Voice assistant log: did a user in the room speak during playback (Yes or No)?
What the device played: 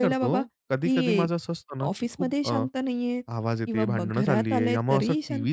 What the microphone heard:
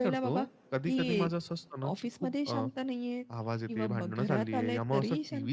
No